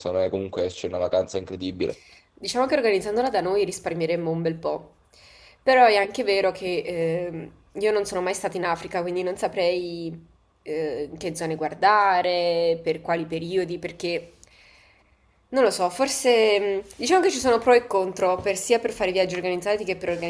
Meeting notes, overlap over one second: none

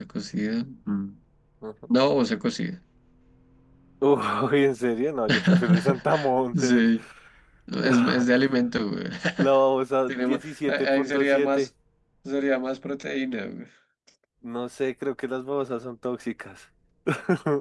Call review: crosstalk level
present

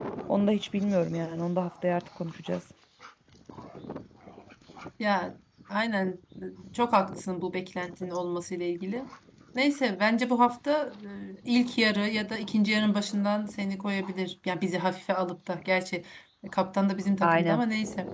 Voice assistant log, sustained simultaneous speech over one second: none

